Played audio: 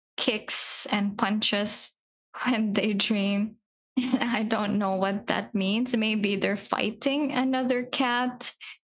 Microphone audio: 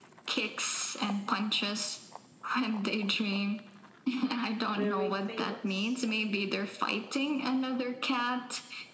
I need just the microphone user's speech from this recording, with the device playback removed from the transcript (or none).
very famous.